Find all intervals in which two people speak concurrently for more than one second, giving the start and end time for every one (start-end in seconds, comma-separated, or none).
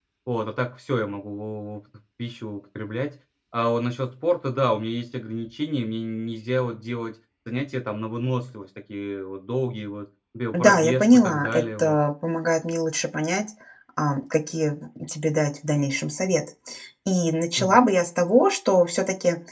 10.5-12.0